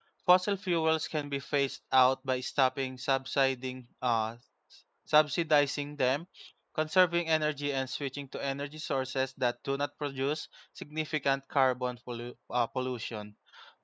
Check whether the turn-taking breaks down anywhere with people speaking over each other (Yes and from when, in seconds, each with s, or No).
No